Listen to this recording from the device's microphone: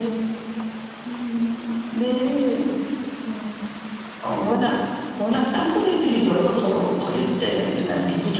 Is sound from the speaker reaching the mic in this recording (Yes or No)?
Yes